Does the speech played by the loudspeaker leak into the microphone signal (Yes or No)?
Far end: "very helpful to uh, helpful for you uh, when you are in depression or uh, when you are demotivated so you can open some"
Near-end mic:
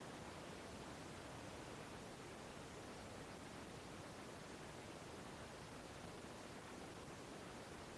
No